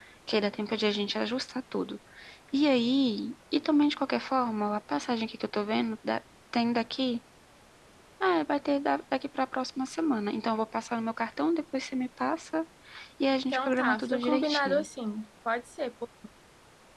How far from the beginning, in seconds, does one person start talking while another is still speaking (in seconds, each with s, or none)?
13.5 s